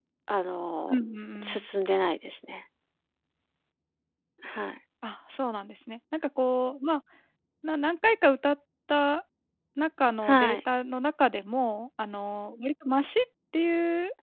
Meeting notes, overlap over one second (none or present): none